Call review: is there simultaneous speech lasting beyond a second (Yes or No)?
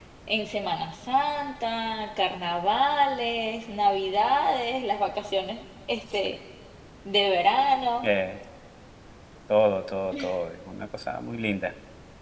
No